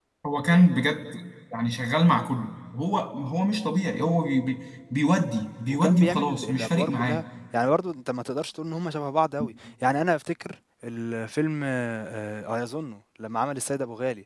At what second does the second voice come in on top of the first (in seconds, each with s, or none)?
5.7 s